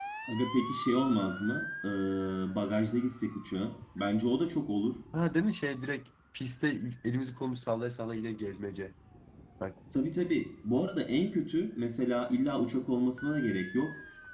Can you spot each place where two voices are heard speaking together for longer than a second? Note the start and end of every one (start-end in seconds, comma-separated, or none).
none